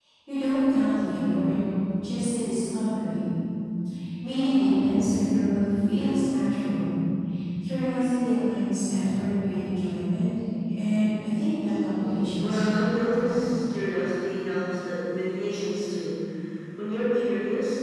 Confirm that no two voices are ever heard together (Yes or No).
No